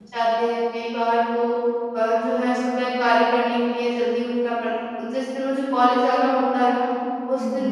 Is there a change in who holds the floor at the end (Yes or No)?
No